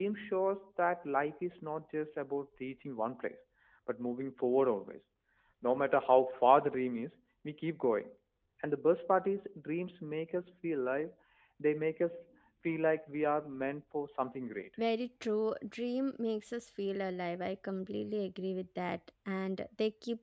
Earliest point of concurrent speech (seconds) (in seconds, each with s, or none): none